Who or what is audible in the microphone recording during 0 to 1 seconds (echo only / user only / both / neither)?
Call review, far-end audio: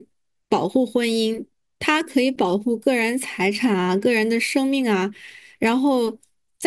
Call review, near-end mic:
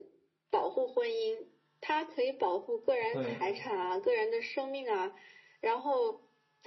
echo only